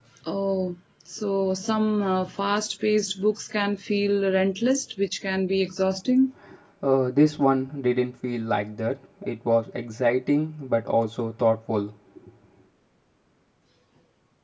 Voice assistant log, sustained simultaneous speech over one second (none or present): none